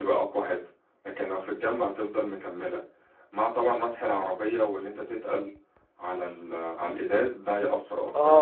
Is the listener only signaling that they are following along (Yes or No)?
No